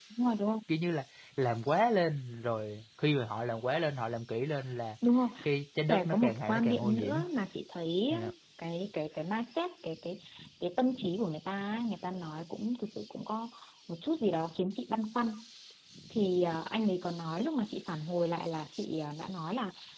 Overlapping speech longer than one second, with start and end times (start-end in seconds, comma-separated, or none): 5.9-7.2